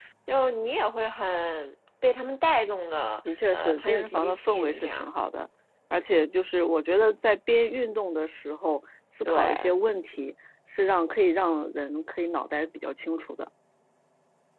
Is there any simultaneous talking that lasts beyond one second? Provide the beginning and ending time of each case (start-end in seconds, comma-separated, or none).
3.5-5.1